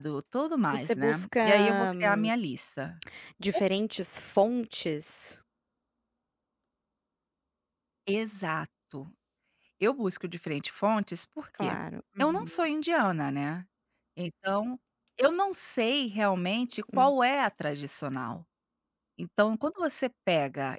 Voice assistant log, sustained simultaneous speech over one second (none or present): present